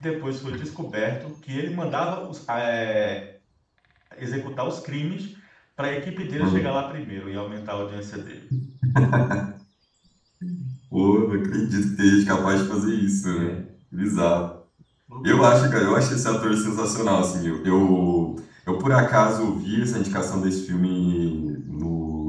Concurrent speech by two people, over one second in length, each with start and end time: none

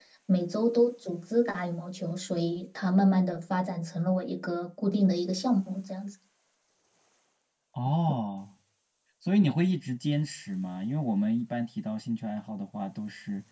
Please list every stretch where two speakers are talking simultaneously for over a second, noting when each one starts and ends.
none

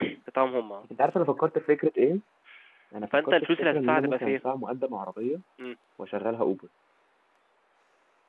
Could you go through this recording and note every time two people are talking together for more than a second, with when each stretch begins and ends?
3.1-4.4

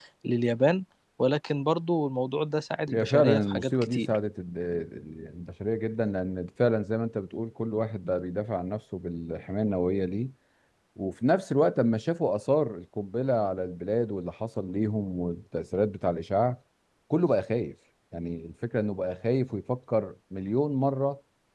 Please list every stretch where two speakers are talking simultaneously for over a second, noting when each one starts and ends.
2.9-4.2

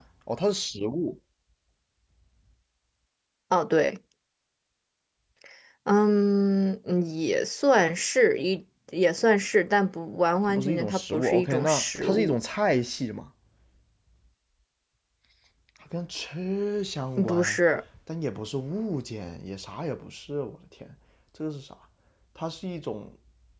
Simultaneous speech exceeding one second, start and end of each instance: 10.5-12.4

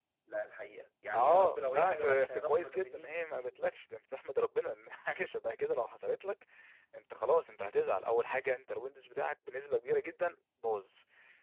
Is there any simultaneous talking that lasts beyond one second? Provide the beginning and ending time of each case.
1.1-3.5

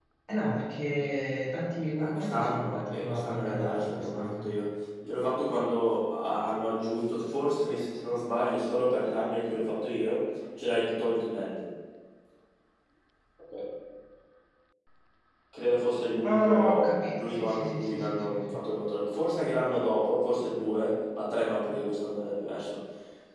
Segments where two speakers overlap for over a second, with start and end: 2.0-4.6, 16.2-18.8

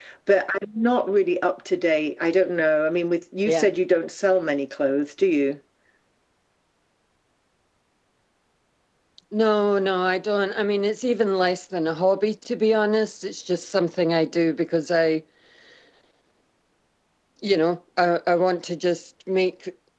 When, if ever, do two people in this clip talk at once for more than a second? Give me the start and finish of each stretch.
none

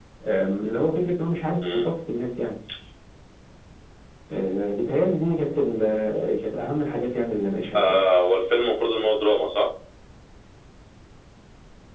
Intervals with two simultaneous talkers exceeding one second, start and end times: none

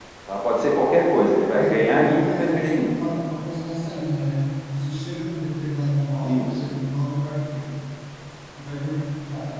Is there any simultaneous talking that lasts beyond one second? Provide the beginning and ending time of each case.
1.6-2.9

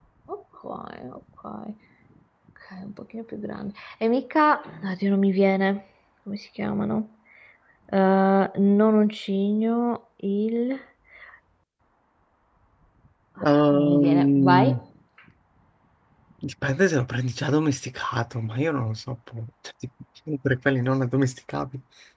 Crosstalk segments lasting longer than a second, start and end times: 13.4-14.8

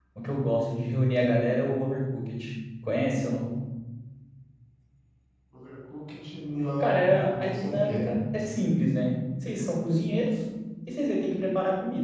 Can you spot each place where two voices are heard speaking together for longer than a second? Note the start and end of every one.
6.8-8.1

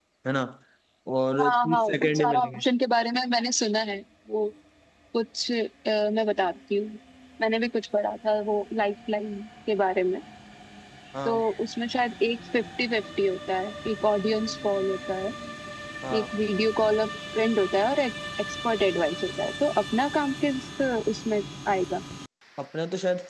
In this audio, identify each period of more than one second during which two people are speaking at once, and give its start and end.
1.4-2.6

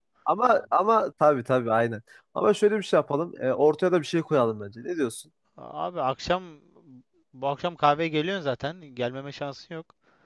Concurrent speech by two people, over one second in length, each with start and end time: none

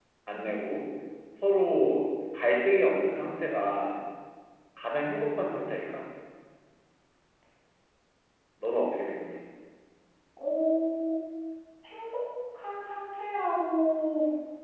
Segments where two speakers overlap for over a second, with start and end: none

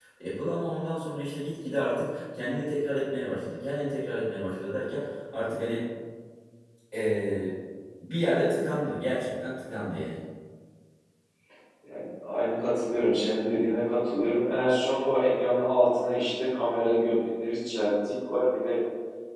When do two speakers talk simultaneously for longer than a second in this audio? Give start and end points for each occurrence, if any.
none

